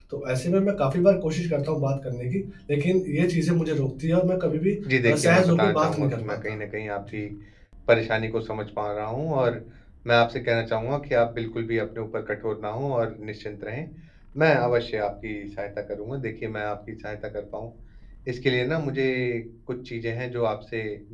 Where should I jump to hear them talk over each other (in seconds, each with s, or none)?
4.8 s